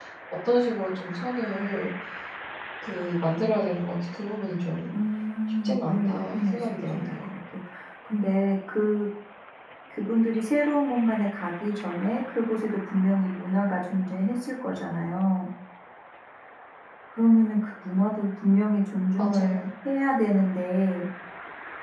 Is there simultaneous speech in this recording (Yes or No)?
Yes